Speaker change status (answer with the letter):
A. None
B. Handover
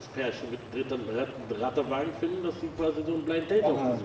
B